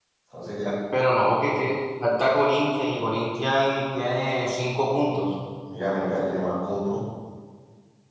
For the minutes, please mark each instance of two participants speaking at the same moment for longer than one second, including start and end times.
none

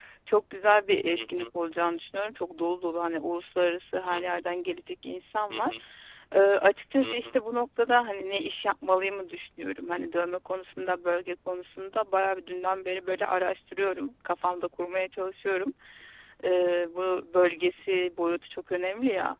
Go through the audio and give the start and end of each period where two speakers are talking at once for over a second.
none

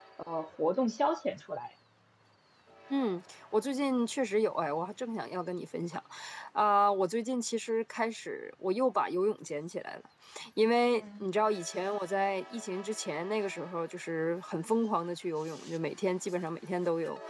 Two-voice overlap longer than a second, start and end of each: none

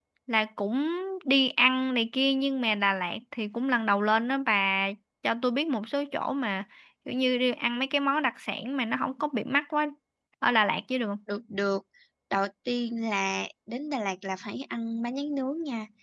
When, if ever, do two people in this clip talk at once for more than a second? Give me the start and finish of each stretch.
none

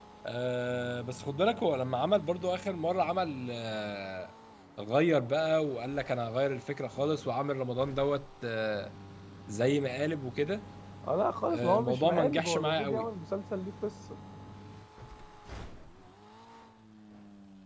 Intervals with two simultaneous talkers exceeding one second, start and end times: 11.5-13.1

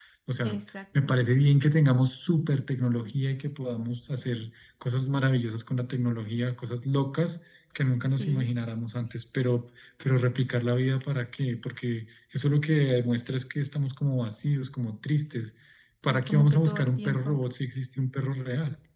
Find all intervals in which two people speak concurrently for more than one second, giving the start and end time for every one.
16.1-17.4

